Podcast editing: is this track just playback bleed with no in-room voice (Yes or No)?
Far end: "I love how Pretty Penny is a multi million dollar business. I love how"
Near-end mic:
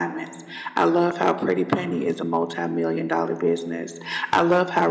Yes